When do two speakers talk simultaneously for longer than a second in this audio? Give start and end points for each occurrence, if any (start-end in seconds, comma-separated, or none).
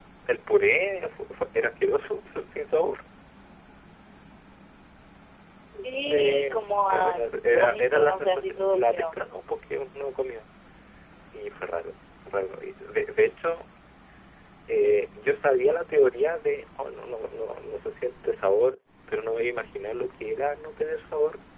6.1-9.1